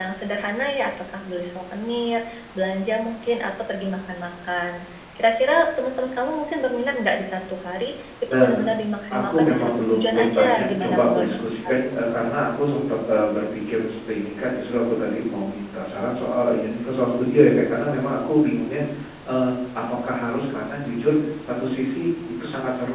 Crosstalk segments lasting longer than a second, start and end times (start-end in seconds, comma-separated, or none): 9.1-11.2